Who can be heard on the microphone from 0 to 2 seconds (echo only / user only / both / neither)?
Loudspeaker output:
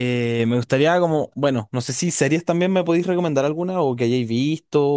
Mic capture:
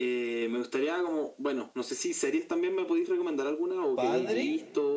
echo only